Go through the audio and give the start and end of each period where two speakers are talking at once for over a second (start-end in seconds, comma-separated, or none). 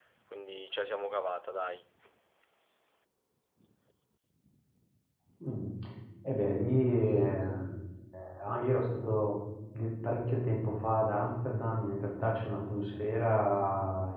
none